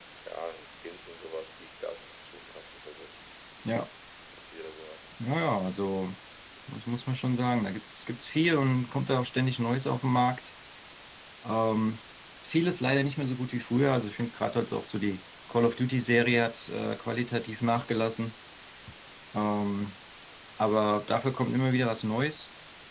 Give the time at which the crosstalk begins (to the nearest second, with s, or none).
none